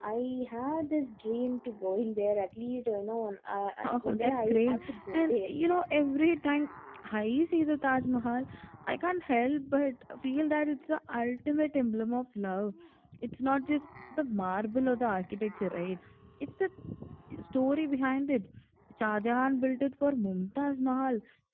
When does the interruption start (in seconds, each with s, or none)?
3.8 s